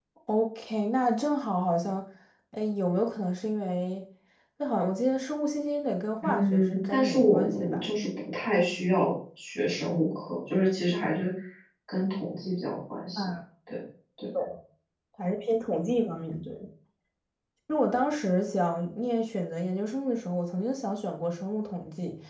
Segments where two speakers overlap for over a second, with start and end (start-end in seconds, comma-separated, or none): 6.2-7.9